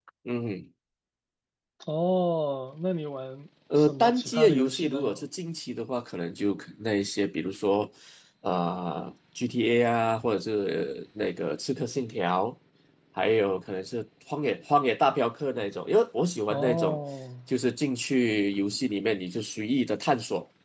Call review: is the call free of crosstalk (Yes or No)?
No